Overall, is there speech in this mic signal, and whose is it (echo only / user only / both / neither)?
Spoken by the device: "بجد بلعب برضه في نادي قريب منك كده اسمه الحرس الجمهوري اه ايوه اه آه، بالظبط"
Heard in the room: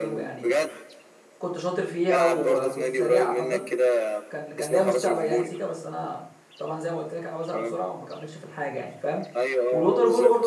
both